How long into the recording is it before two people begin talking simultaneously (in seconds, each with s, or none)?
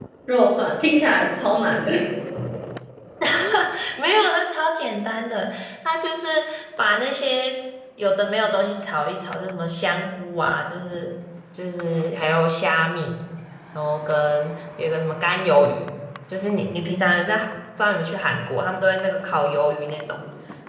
none